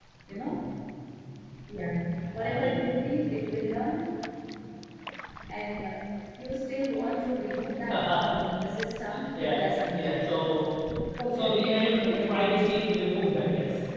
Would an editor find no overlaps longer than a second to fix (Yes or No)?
No